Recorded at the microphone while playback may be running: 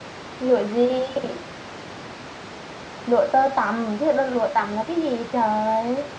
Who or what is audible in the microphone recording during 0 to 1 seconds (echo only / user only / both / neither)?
user only